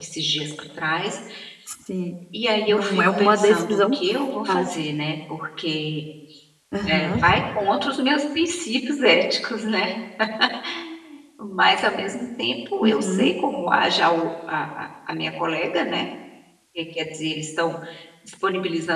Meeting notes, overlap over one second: present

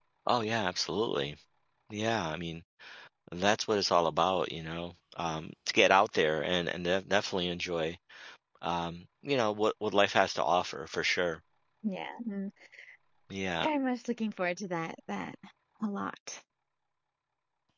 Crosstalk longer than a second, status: none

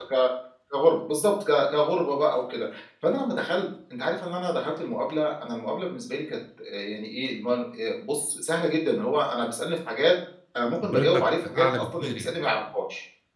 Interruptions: present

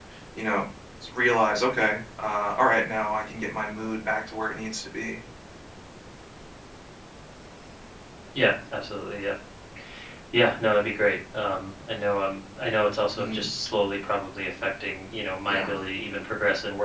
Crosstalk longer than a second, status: none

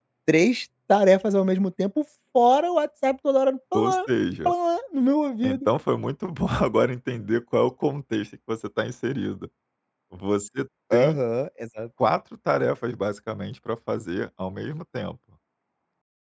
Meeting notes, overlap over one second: none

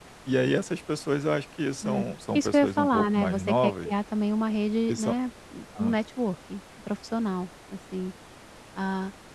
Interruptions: present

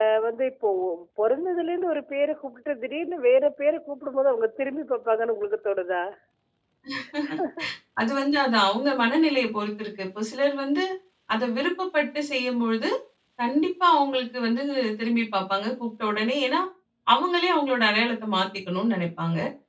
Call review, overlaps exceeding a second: none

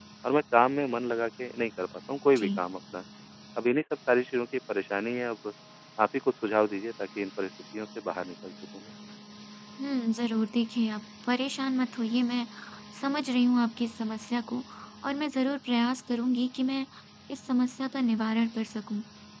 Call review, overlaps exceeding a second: none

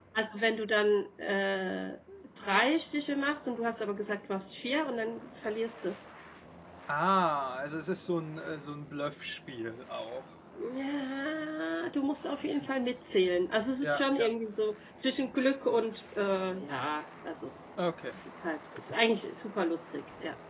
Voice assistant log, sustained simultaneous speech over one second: none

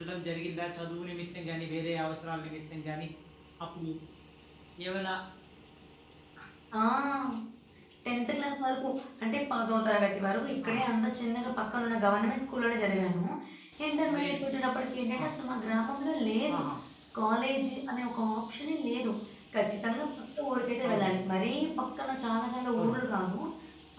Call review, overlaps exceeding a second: none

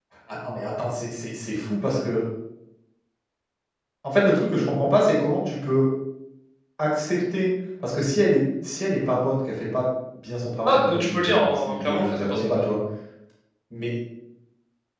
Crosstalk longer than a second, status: present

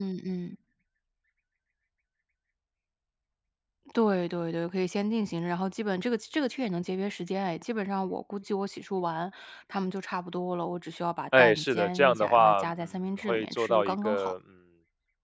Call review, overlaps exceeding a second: present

